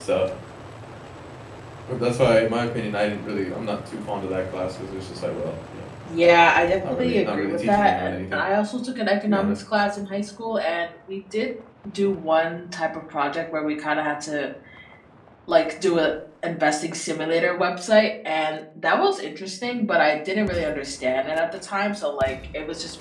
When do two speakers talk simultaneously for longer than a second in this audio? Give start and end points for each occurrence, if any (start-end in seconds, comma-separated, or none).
6.9-8.4